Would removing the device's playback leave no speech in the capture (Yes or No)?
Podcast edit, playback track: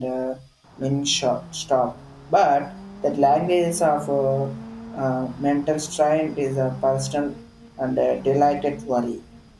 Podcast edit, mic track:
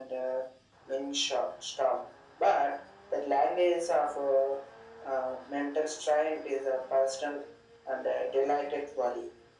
Yes